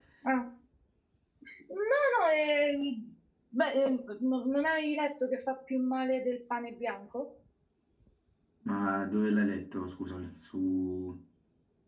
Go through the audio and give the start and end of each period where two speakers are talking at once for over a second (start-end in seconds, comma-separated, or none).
none